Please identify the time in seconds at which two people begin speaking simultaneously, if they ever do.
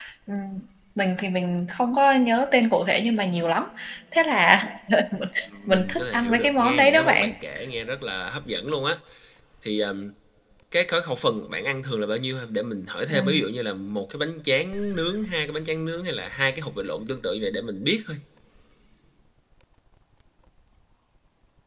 5.7 s

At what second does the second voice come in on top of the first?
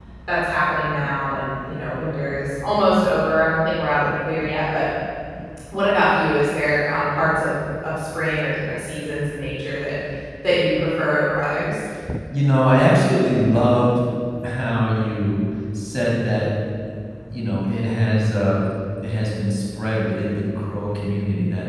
none

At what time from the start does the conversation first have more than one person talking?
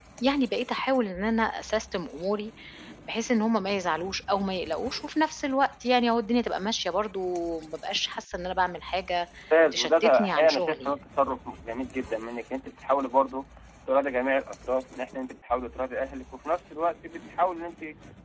9.7 s

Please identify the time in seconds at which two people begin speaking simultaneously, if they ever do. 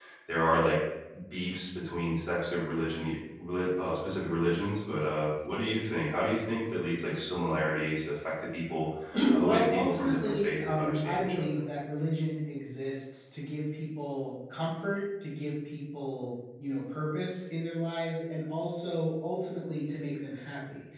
9.4 s

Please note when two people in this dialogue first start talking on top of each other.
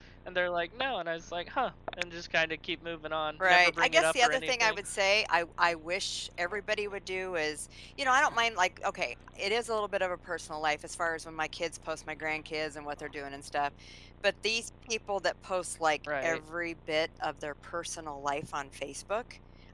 3.4 s

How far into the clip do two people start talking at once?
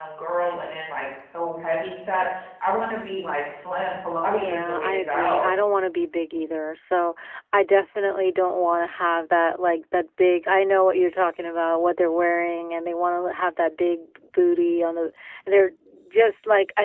4.2 s

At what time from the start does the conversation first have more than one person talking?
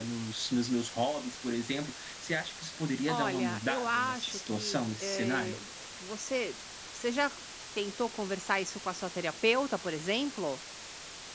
3.1 s

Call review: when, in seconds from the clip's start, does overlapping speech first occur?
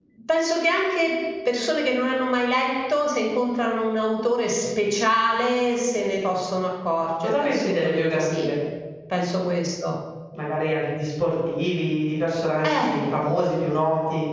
7.2 s

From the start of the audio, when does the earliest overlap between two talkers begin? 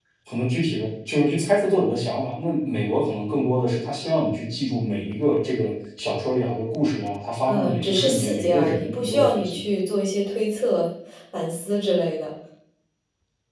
7.5 s

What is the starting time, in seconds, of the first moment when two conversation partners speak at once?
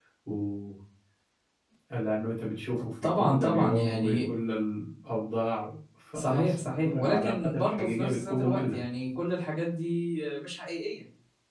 3.0 s

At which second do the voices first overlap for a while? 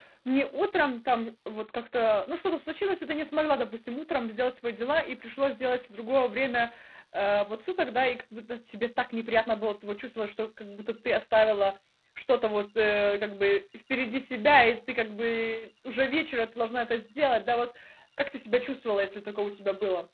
none

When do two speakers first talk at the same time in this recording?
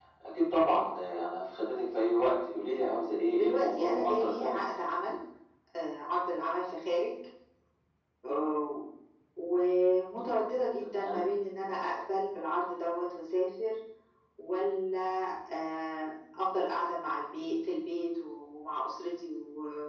3.4 s

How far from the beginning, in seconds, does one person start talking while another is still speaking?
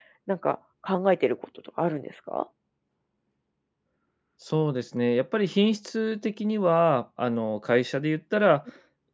none

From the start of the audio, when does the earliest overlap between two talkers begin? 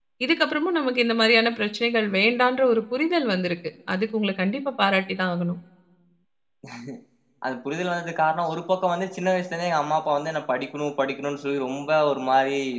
none

